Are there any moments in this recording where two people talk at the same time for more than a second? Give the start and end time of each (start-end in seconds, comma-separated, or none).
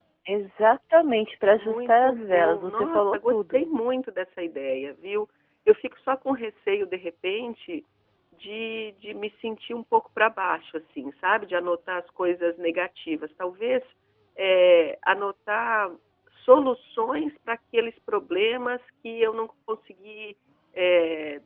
1.6-3.7